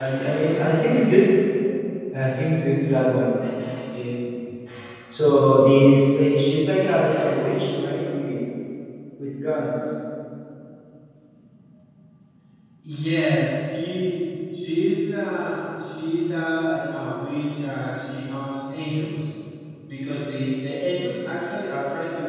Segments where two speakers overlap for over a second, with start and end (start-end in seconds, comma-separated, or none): none